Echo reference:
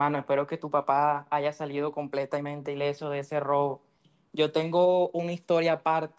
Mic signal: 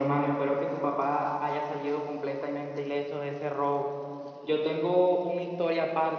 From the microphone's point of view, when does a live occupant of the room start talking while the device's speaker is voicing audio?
none

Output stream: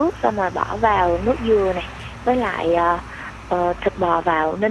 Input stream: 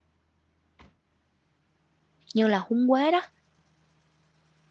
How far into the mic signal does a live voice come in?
2 s

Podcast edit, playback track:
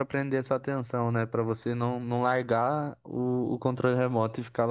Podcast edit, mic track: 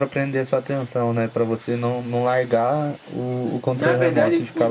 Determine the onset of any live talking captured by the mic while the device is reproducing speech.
4 s

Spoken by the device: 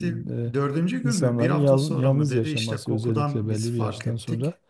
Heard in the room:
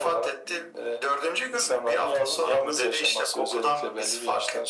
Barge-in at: none

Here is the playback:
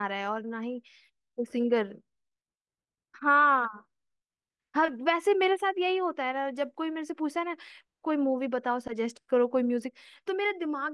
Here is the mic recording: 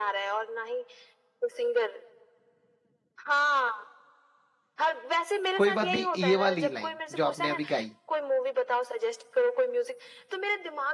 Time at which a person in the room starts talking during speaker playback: 6 s

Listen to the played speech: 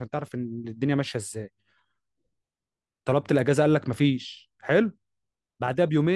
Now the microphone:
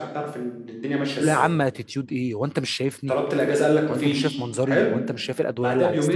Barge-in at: 1 s

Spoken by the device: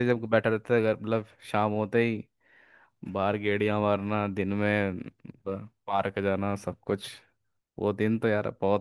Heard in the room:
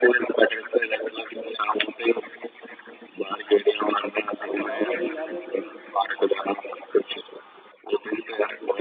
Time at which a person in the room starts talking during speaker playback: 4 s

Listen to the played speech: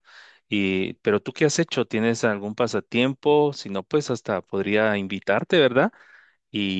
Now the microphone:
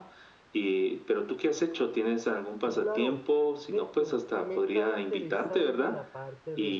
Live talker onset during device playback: 3 s

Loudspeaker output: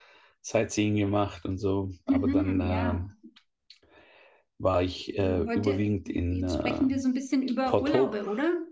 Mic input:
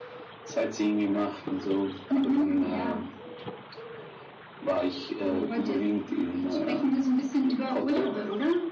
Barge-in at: none

